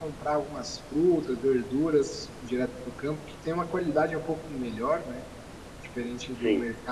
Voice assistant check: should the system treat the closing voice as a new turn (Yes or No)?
No